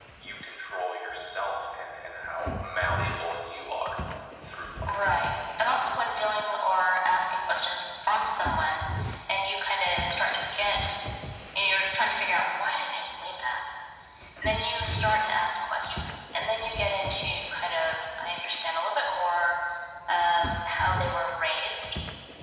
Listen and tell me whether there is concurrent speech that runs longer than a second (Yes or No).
No